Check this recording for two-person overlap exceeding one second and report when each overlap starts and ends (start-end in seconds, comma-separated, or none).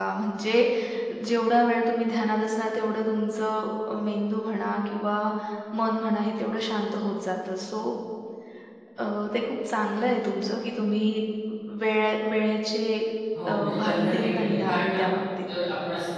13.5-15.0